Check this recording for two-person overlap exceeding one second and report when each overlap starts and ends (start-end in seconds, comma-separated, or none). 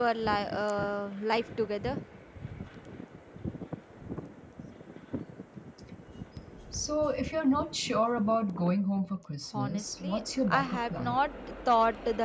9.5-11.2